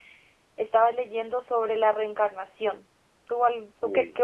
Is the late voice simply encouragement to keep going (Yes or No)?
Yes